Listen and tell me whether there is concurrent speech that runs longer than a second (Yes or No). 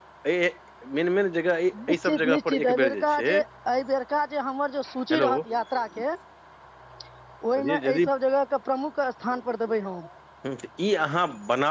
Yes